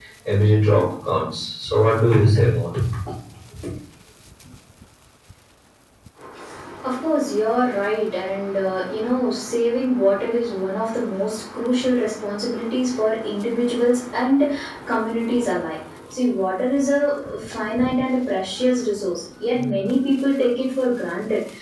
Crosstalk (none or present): none